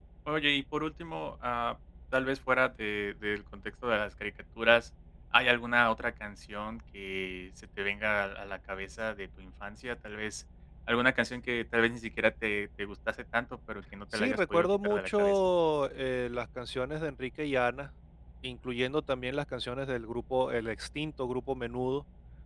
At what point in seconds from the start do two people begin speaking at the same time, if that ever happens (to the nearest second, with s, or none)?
14 s